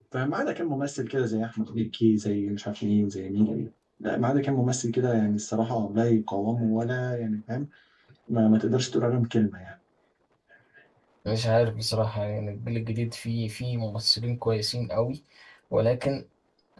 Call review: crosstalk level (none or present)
none